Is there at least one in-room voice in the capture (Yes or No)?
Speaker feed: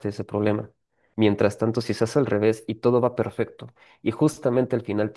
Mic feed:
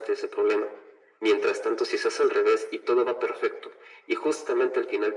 No